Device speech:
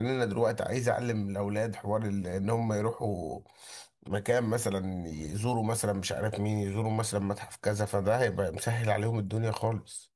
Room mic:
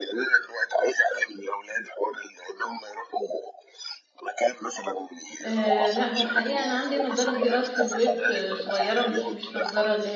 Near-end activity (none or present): present